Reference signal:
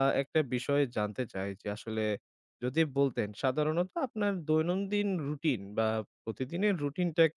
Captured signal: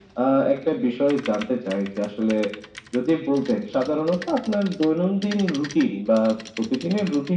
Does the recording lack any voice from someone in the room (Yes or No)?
Yes